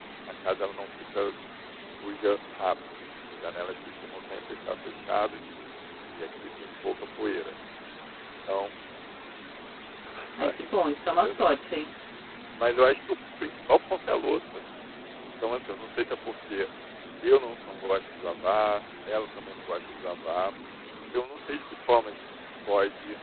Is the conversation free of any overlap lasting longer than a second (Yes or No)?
No